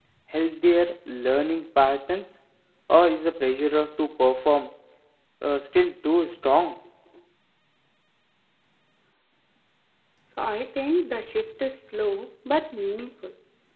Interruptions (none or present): none